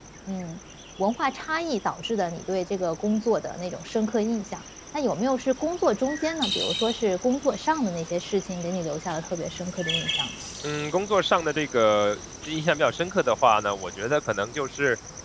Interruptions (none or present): none